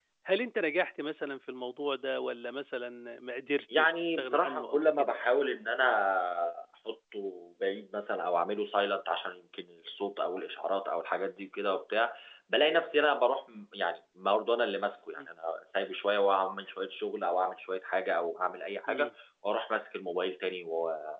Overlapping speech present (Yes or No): Yes